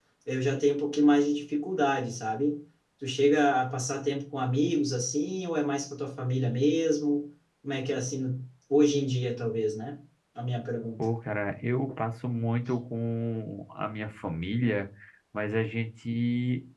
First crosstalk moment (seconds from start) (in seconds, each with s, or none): none